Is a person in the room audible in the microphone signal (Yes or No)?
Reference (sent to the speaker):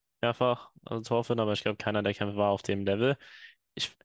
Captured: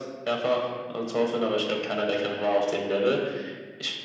No